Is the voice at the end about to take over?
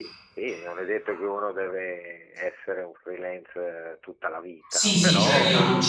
Yes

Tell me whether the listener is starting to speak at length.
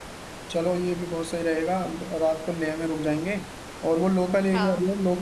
No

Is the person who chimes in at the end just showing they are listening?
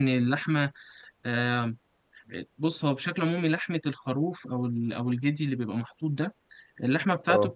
Yes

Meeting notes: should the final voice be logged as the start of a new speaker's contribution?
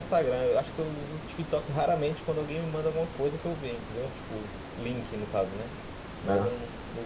No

